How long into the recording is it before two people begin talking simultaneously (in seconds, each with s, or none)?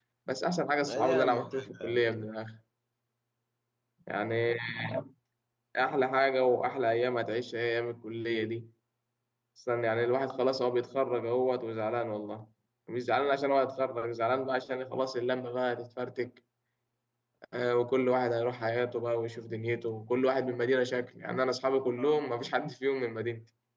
0.9 s